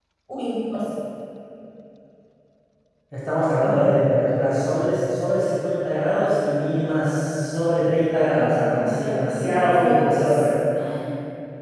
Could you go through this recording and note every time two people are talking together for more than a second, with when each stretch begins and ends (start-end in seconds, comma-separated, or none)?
8.3-10.5